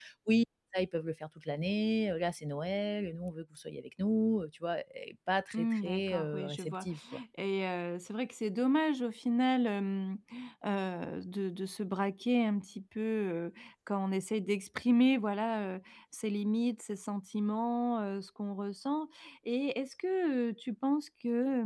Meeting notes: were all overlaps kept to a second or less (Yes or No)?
No